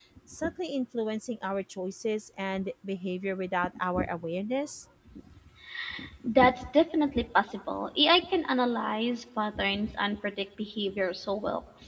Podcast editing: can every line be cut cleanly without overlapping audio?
Yes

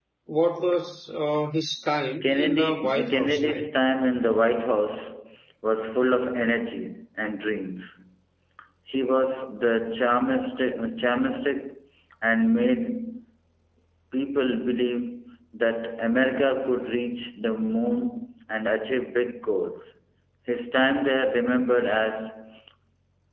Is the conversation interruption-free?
No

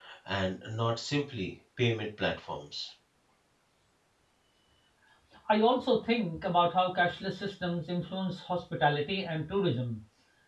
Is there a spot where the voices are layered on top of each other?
No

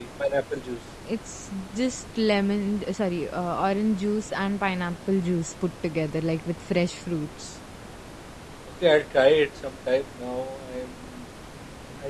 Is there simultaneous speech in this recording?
No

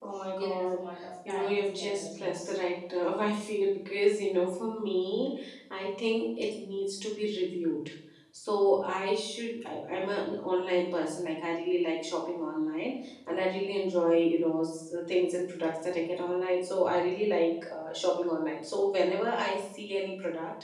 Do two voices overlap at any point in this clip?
Yes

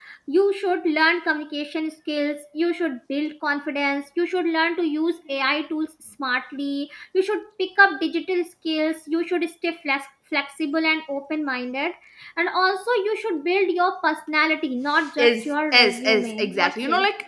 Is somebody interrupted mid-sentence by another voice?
Yes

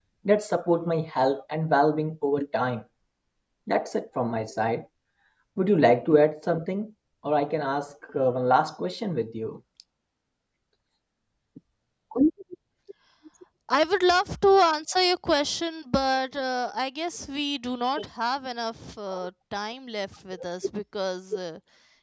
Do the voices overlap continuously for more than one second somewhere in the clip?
No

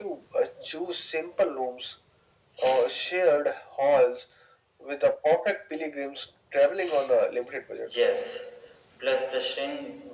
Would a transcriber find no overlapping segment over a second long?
Yes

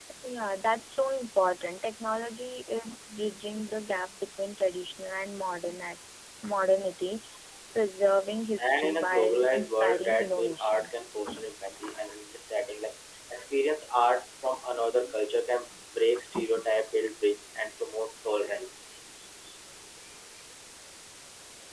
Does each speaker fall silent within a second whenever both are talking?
No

